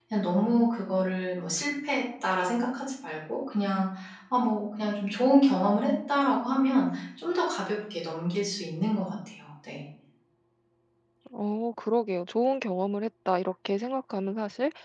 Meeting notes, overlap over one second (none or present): none